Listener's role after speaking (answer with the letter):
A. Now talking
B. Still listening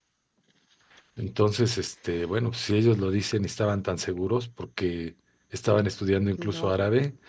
B